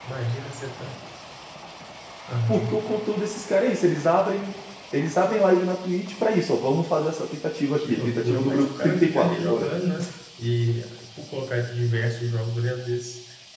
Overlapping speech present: Yes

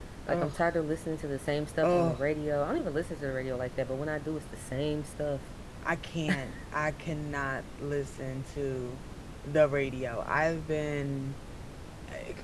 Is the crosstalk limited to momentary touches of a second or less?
Yes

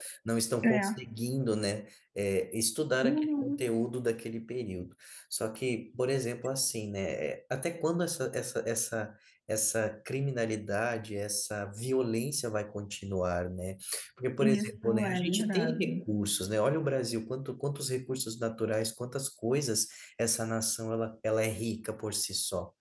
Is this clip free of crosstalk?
No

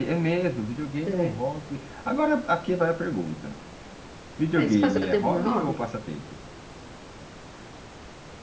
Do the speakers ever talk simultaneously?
Yes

